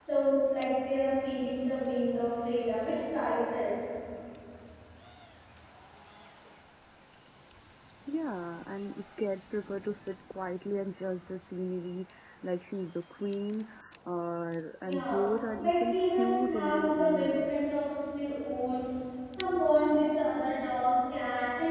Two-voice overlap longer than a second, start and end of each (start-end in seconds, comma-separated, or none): 15.6-17.5